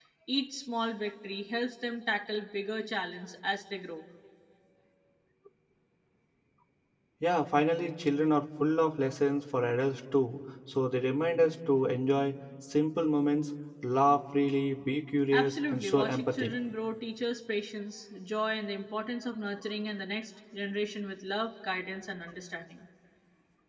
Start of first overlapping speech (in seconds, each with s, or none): 15.3 s